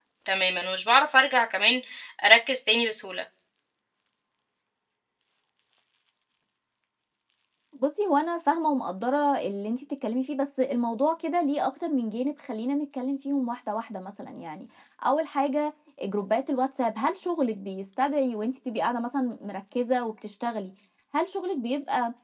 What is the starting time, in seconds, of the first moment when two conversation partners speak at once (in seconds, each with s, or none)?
none